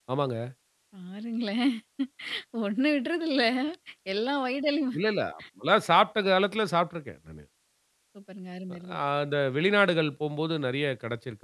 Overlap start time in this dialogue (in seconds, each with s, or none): none